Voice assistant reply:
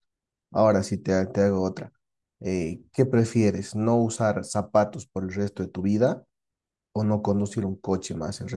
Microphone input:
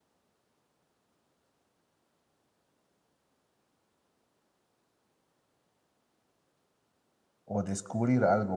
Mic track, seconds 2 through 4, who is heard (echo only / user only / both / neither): neither